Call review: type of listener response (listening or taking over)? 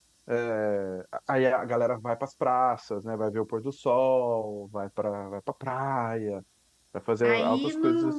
taking over